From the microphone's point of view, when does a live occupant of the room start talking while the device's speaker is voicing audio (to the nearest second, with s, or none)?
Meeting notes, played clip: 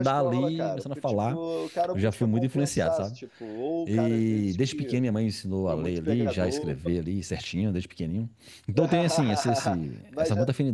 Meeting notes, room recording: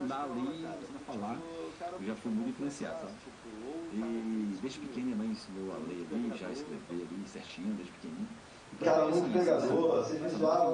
9 s